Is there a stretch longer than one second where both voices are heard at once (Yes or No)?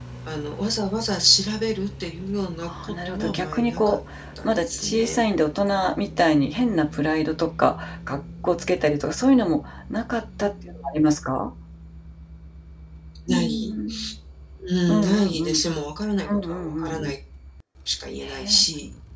Yes